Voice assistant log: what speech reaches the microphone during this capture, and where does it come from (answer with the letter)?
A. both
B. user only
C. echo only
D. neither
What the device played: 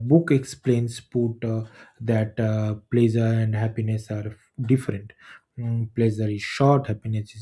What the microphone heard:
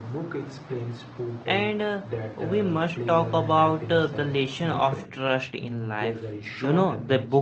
A